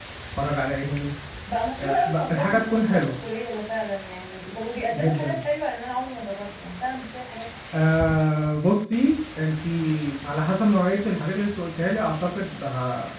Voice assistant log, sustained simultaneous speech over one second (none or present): present